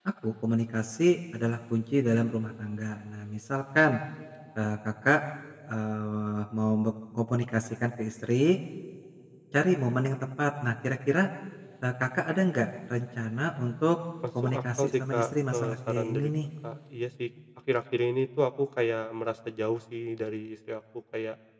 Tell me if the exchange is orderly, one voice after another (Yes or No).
No